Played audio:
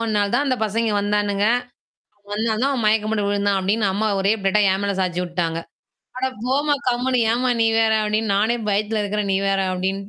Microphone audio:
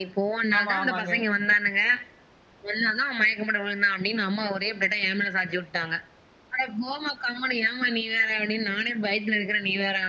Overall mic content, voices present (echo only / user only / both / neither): both